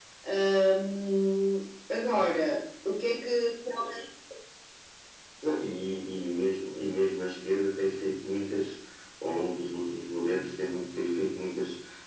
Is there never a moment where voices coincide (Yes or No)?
Yes